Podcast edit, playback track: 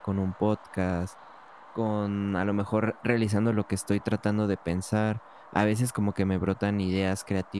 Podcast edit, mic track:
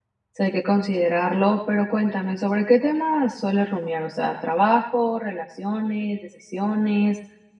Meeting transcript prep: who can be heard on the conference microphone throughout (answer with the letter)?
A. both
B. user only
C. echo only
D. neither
B